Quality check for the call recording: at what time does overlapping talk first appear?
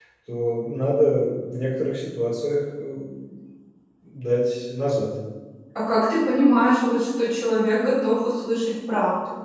none

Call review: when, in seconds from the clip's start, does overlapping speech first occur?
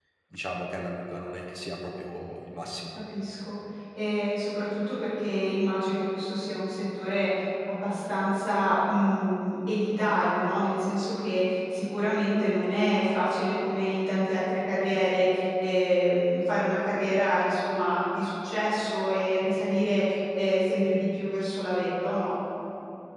none

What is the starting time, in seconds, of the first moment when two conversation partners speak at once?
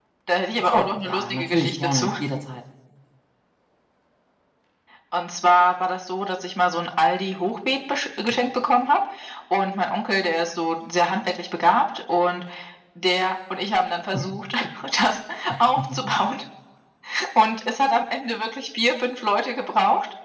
0.7 s

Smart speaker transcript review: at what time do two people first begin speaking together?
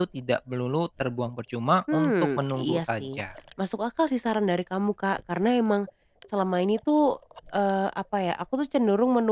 1.9 s

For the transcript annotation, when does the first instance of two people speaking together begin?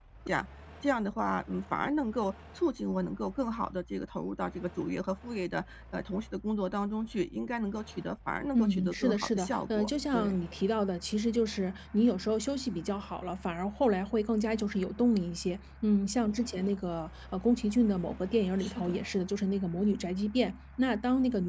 8.5 s

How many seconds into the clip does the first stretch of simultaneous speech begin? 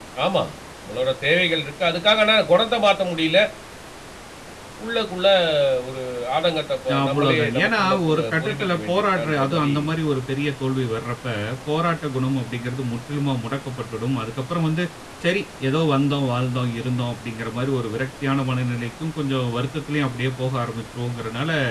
6.9 s

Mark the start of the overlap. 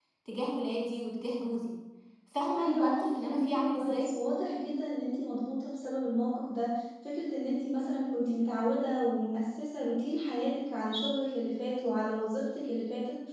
2.6 s

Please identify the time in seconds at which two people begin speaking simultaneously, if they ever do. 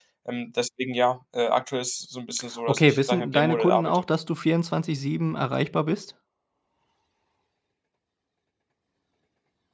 2.7 s

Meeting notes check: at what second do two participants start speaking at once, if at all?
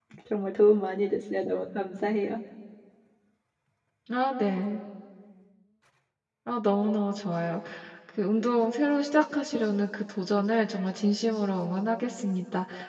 none

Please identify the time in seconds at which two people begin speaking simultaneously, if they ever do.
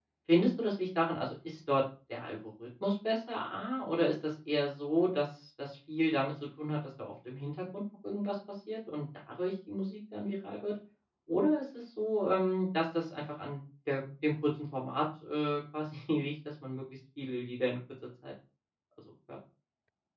none

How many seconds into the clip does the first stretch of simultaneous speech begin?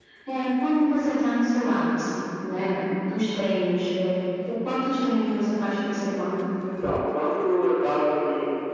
none

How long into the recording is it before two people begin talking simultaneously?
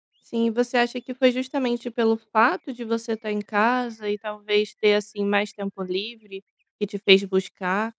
none

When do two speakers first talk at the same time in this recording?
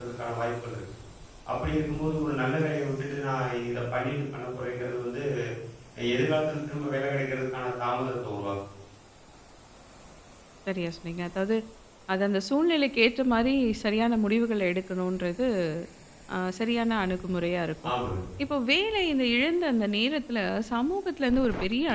none

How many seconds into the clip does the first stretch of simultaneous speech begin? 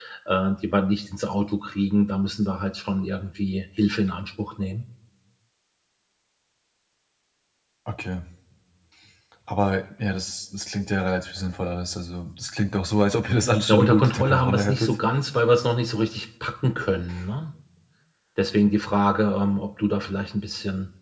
13.7 s

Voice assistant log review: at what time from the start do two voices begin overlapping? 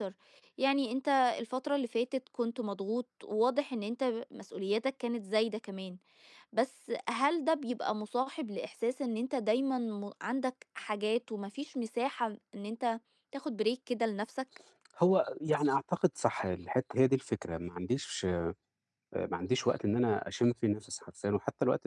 none

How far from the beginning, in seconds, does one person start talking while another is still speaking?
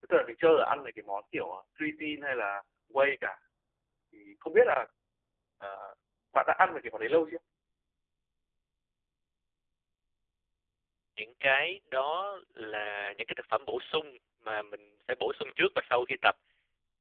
none

